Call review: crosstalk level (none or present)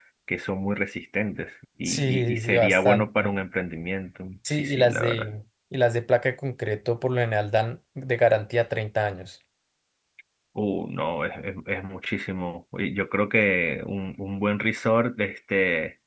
present